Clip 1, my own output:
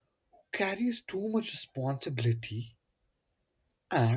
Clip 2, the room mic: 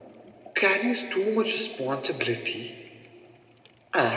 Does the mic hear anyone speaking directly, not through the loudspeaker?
No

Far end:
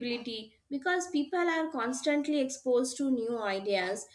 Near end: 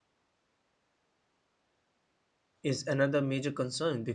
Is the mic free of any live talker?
No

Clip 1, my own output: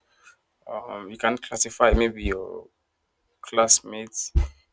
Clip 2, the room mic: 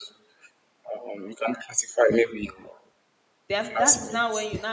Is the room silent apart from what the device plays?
No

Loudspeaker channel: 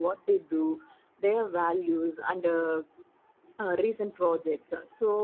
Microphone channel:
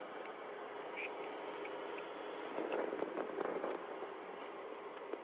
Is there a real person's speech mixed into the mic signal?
No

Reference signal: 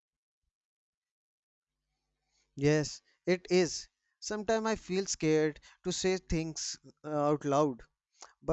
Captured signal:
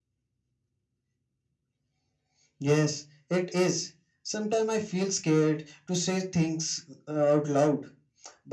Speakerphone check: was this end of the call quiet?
Yes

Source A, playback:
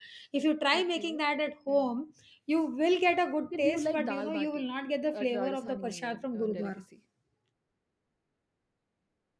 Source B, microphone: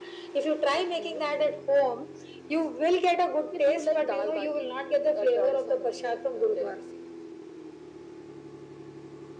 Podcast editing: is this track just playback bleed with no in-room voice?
Yes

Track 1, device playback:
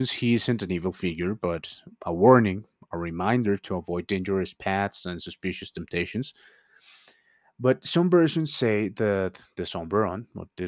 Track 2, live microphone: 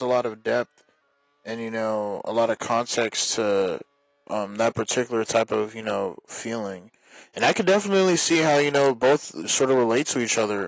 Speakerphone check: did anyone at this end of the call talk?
Yes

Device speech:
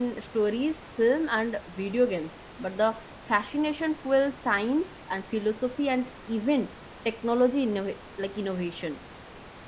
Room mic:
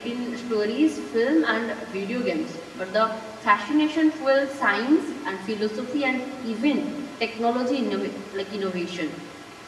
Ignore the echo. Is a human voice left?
No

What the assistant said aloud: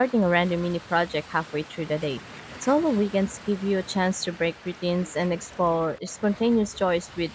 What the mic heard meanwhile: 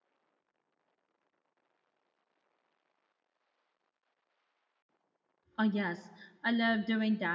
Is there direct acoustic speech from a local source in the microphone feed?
Yes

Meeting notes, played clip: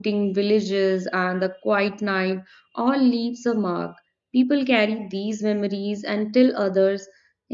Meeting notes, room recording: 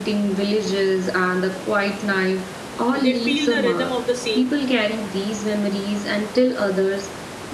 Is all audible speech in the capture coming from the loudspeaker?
No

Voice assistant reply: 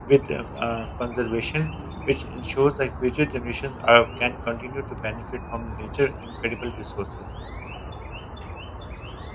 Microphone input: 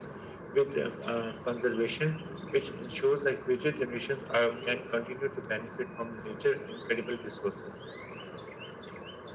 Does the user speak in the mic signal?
No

